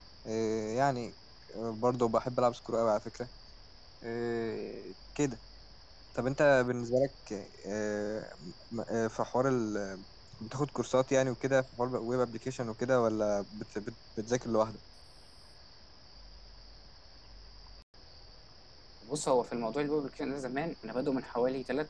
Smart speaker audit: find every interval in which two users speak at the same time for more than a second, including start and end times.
none

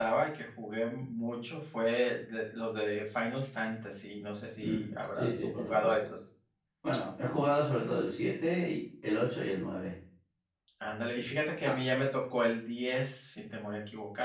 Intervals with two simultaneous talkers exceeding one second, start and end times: 4.6-6.1

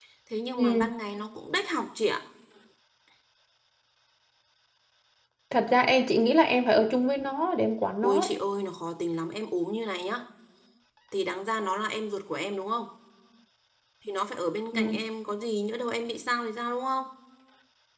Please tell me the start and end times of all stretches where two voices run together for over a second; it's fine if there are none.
none

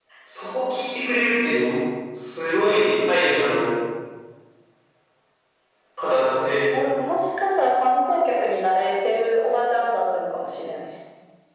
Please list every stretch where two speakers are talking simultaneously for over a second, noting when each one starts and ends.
none

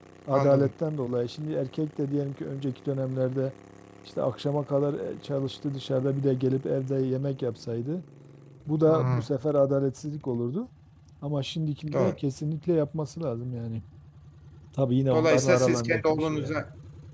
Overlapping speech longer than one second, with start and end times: 15.1-16.6

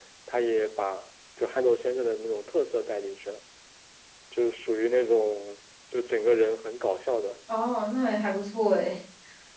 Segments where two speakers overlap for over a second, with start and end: none

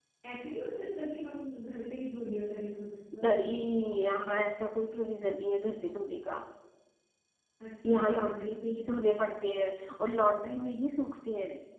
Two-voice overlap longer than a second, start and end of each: 7.8-9.1

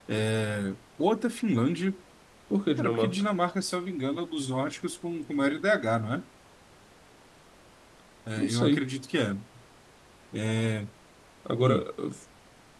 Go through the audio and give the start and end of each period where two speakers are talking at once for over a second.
none

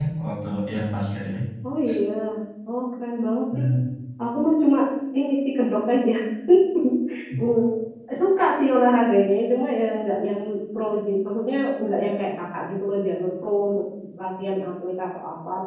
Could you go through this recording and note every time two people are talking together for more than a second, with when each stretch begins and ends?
none

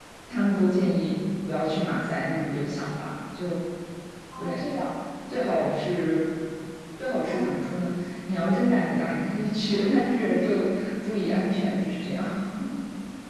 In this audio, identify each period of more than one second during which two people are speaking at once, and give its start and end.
none

